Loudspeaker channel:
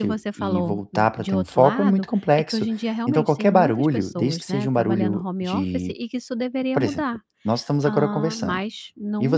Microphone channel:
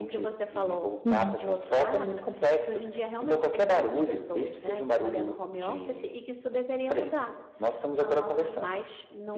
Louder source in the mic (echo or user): user